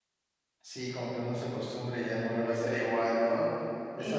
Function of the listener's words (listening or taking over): listening